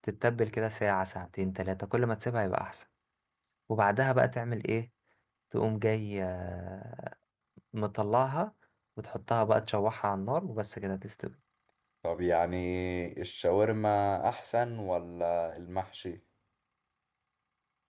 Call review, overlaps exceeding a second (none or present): none